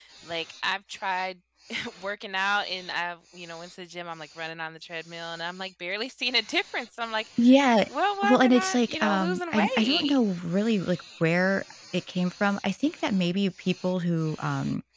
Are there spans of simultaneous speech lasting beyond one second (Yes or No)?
Yes